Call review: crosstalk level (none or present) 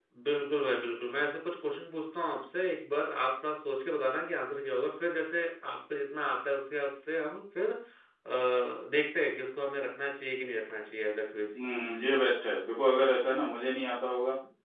none